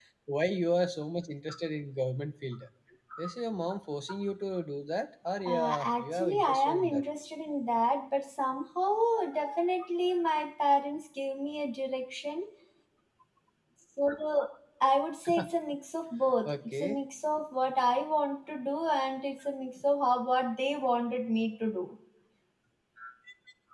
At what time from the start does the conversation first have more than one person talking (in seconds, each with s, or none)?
5.5 s